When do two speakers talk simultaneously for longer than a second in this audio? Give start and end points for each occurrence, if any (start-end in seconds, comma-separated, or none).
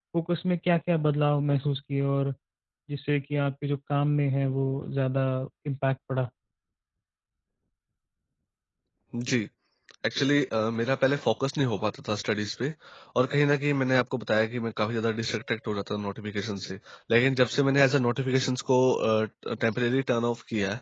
none